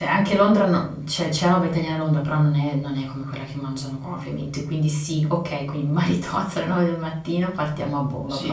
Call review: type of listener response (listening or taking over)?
taking over